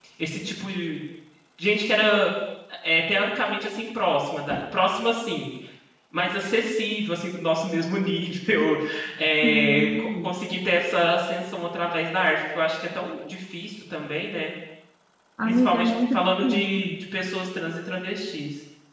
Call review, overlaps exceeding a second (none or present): present